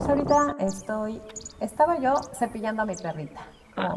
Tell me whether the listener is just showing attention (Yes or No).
No